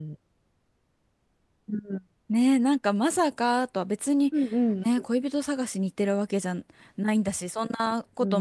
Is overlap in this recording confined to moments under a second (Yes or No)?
Yes